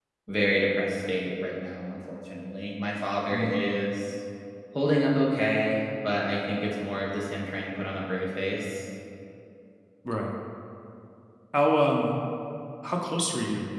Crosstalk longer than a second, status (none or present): none